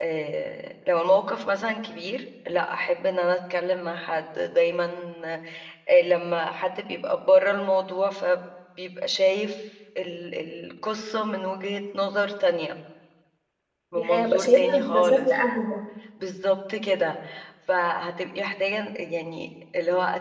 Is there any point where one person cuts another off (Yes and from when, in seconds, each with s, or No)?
Yes, from 14.0 s